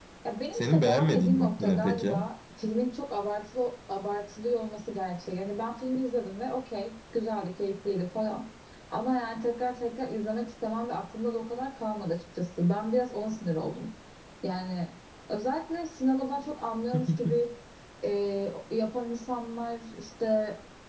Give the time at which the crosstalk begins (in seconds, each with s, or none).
0.5 s